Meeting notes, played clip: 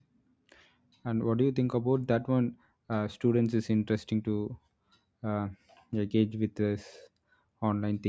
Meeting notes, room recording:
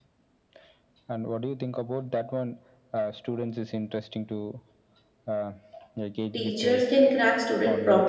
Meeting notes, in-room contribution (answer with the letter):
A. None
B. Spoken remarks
B